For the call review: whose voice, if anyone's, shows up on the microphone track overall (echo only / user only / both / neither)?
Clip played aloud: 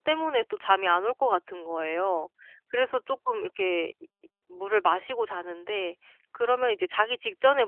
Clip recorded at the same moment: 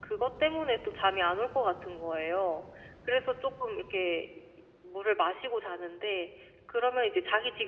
echo only